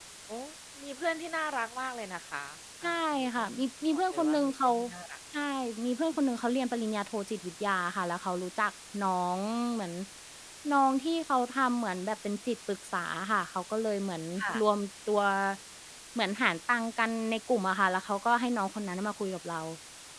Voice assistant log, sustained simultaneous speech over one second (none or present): present